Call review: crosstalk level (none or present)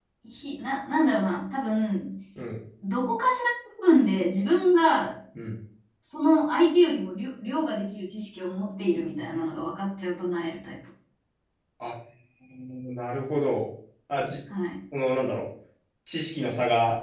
none